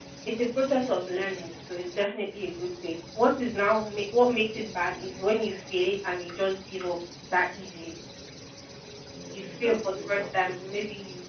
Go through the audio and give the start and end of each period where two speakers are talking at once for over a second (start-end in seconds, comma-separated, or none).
9.3-10.6